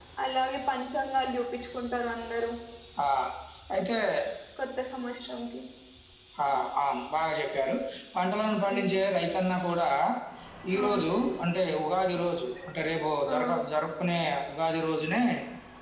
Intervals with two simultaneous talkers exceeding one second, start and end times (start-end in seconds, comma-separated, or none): none